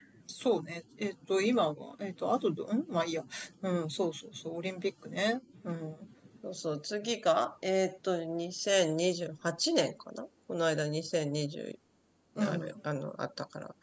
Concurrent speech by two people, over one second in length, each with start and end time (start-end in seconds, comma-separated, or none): none